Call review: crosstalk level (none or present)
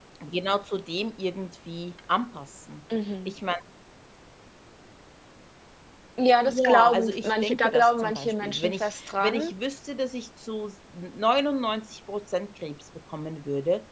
present